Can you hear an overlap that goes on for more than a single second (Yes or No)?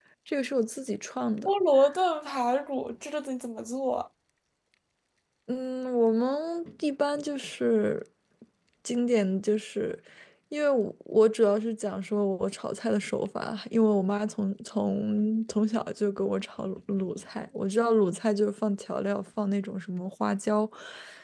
No